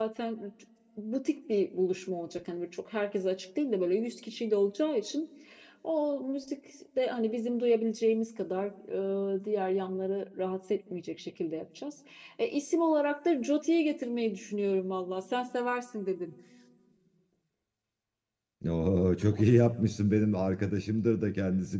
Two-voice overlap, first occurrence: none

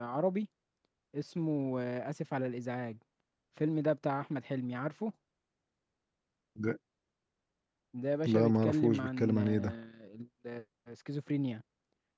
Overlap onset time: 8.3 s

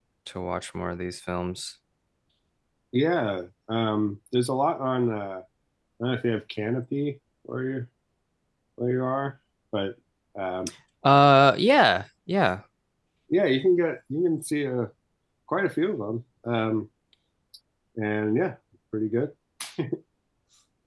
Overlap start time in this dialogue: none

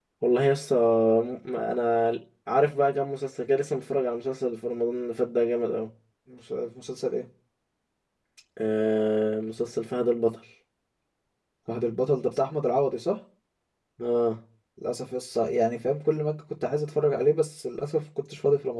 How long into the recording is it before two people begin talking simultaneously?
none

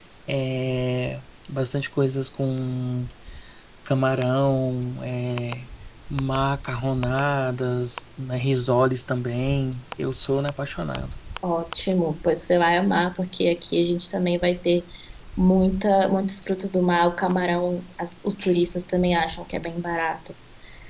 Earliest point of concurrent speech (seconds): none

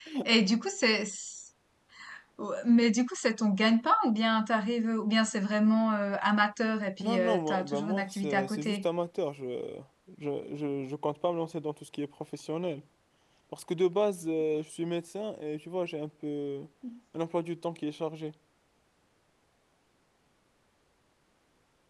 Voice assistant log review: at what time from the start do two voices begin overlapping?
7.0 s

